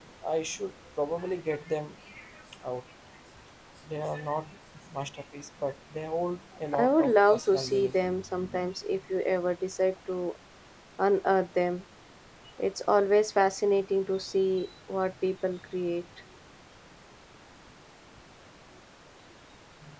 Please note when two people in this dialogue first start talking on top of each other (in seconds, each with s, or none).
6.7 s